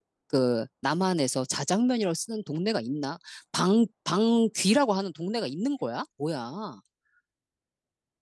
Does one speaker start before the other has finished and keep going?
No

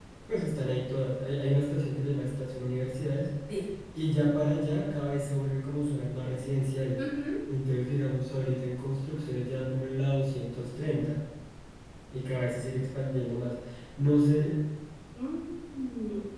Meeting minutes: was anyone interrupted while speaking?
No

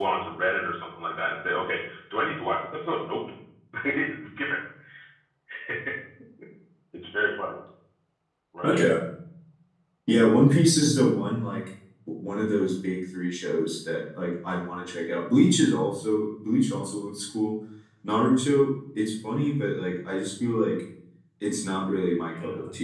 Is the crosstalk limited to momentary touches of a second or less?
Yes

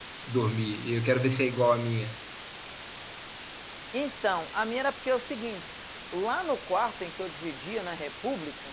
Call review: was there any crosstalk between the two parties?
No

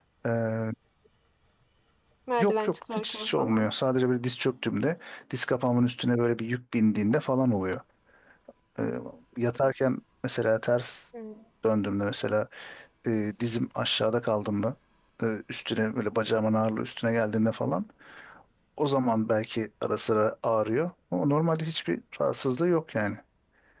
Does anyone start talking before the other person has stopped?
Yes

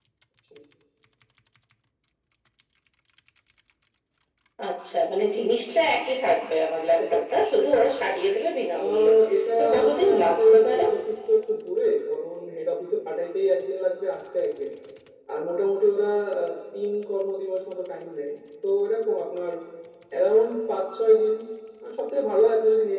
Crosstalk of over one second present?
Yes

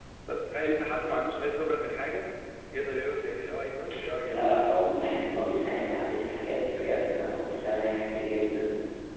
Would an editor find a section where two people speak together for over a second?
No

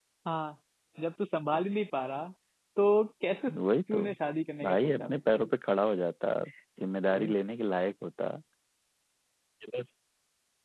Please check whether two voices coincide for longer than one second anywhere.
No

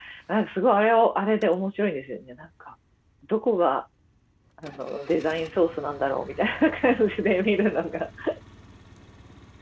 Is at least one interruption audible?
No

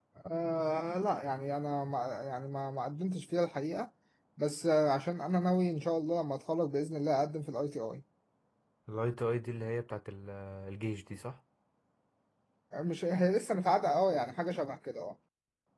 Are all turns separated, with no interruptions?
Yes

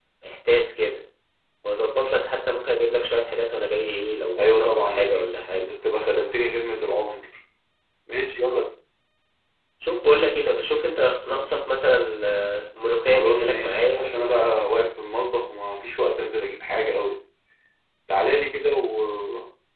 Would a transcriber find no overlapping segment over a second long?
No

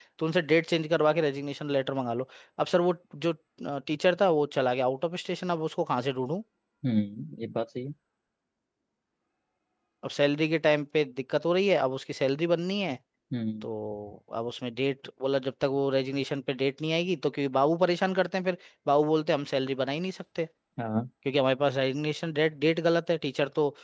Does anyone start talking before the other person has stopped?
No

